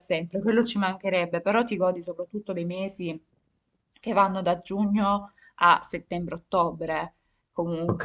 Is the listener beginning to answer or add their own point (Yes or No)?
Yes